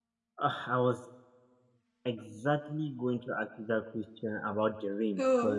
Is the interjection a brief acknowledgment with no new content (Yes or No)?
Yes